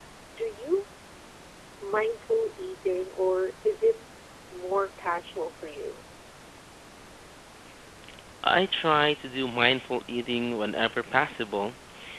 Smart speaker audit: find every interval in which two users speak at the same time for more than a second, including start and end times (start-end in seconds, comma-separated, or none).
none